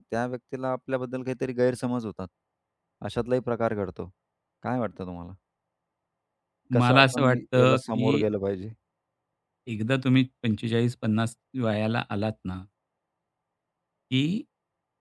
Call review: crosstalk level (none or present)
present